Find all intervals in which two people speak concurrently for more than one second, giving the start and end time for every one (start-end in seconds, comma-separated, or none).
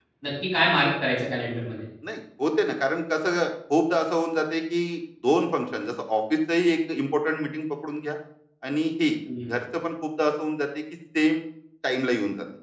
none